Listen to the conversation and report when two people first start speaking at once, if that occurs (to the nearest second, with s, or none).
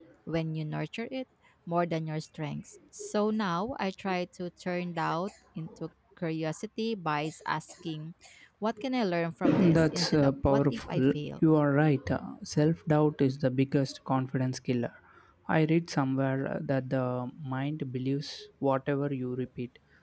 9 s